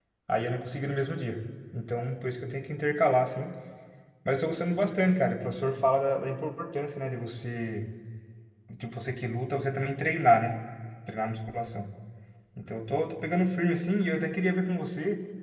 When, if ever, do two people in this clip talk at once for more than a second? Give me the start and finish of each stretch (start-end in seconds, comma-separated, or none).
none